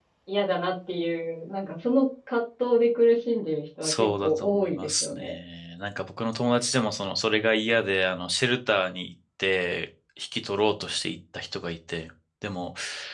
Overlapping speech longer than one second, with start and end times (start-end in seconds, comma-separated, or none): 3.8-5.4